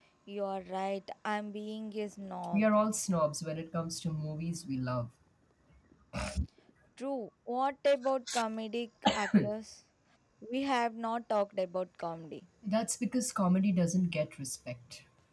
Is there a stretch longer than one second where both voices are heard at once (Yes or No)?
No